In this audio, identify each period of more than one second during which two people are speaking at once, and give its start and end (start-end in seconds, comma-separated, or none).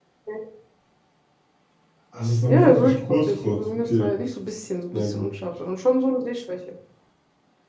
2.5-4.1